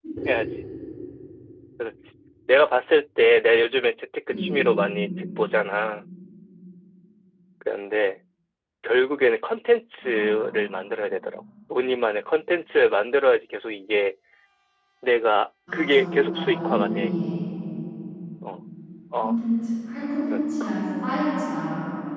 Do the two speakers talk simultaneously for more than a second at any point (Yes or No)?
Yes